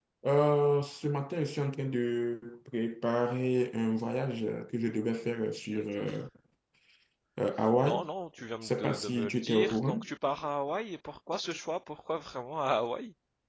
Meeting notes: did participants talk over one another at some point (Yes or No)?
Yes